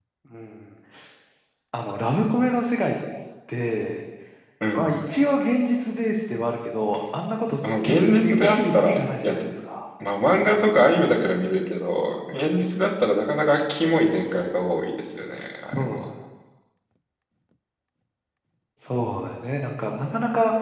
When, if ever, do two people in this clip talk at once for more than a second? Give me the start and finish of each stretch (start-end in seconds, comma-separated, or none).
7.8-9.5